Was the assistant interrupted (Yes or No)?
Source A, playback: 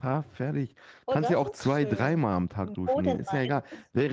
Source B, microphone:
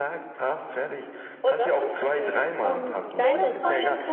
Yes